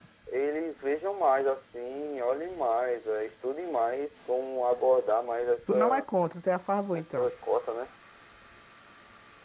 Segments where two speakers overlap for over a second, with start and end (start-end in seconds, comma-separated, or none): none